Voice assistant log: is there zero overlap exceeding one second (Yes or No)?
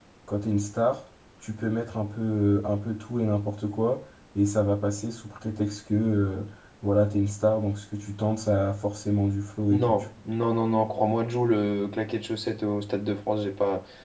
Yes